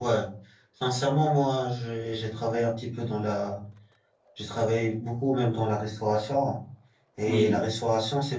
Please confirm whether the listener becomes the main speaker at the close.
No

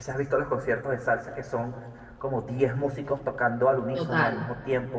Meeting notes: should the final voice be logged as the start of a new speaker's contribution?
No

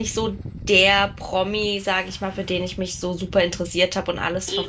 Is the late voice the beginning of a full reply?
No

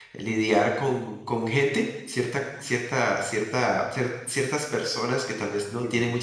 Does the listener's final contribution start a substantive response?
No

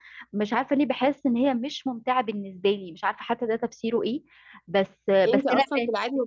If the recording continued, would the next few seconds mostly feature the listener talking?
Yes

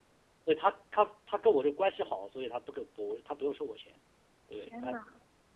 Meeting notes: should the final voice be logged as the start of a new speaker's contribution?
No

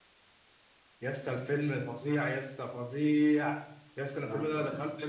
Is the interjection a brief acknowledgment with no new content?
Yes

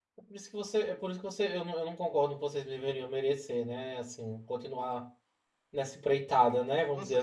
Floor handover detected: Yes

